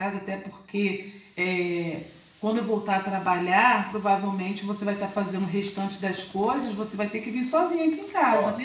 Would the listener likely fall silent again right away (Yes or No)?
No